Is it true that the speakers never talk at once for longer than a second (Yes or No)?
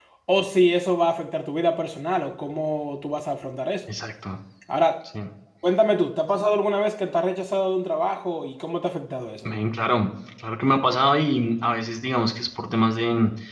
Yes